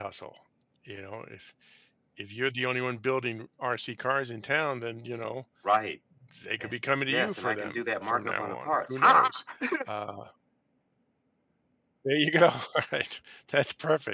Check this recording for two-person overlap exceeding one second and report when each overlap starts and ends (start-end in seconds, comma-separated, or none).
7.1-9.4